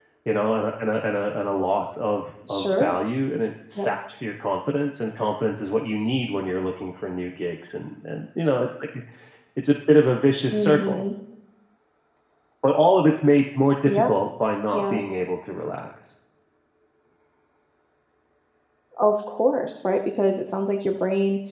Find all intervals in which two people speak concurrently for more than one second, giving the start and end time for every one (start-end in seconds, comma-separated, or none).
none